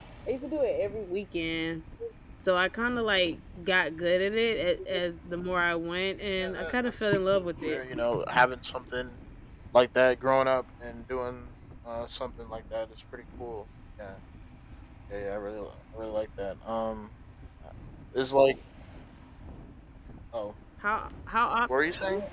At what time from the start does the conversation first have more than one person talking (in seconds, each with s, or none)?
6.4 s